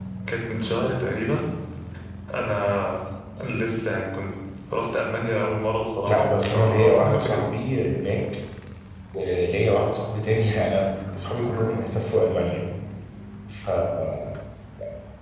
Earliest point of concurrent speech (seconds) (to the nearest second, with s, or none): 6 s